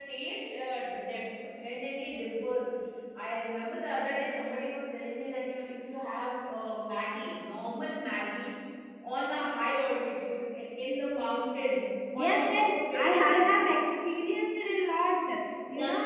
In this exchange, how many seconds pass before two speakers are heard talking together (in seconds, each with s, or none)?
12.1 s